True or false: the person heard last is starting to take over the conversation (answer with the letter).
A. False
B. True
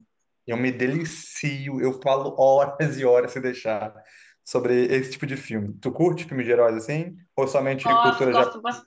B